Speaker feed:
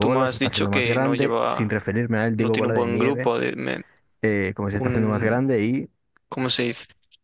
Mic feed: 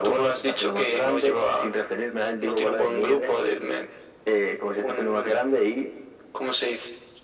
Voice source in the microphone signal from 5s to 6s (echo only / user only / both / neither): echo only